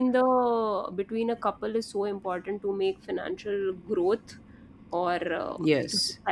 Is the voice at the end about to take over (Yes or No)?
No